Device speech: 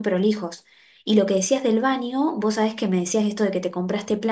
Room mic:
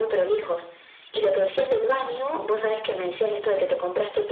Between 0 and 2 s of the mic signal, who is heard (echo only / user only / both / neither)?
echo only